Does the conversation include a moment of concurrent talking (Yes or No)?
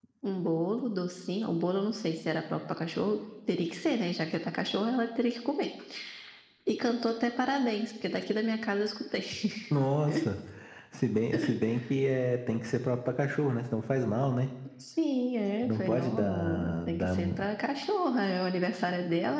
Yes